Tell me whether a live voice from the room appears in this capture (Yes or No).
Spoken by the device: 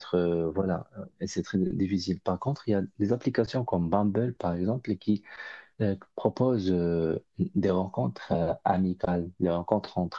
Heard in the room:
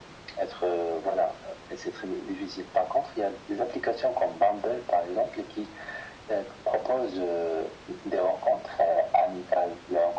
No